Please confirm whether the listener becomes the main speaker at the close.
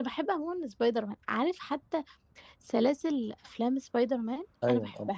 Yes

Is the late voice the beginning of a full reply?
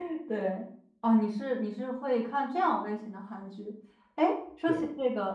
No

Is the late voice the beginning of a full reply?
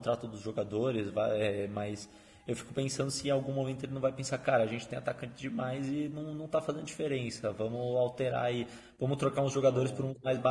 No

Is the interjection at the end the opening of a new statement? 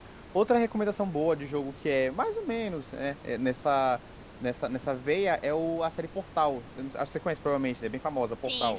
Yes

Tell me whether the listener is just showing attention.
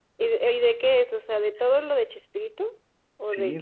No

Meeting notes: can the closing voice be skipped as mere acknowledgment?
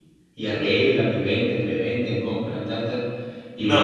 No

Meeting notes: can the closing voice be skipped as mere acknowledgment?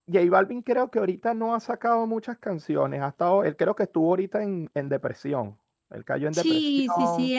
No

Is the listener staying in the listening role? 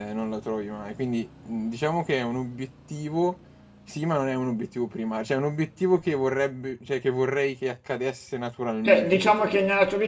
No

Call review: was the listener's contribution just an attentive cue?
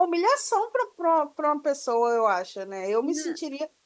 Yes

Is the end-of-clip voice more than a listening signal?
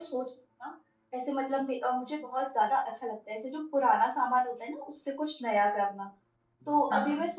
No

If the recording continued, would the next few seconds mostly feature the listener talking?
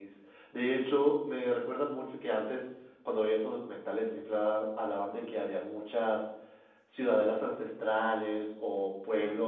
No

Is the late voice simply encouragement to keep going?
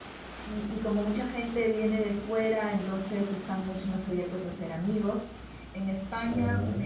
Yes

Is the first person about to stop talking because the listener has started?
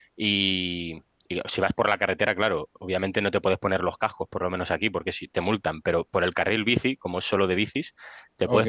No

